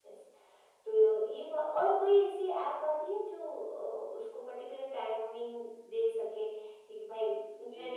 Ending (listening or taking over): taking over